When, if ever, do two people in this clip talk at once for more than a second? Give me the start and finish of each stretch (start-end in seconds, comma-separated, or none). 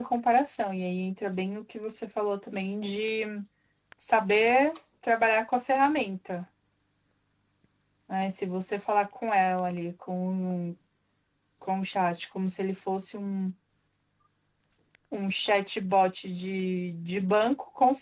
none